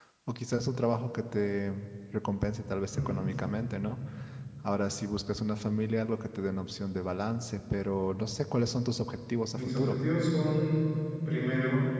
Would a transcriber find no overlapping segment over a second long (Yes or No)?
Yes